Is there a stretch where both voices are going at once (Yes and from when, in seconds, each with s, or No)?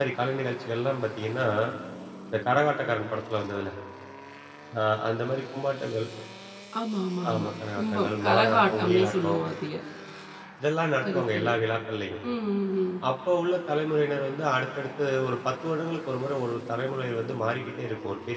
Yes, from 7.3 s